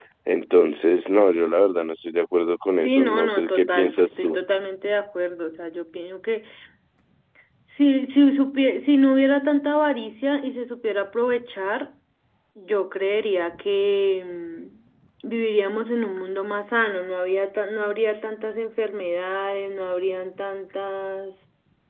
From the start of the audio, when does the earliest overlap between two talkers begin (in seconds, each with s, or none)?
2.8 s